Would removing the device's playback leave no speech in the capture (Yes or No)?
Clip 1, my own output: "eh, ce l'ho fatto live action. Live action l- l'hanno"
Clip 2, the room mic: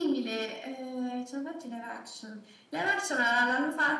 Yes